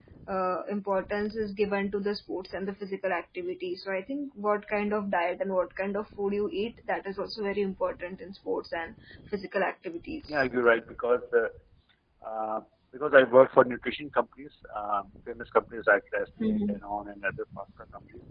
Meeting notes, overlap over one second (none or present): none